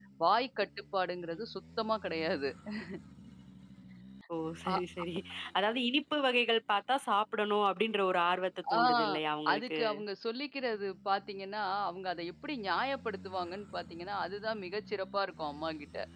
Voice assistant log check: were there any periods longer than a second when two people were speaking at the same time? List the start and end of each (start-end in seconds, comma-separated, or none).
none